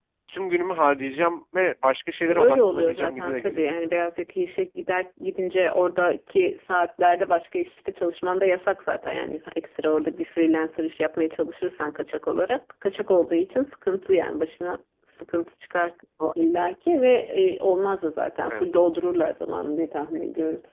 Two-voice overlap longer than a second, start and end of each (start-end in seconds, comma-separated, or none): 2.2-3.6